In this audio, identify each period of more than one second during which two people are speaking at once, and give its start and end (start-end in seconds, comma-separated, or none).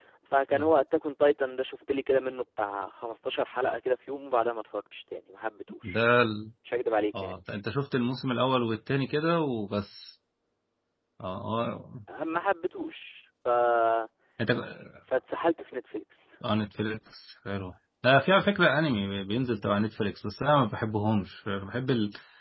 none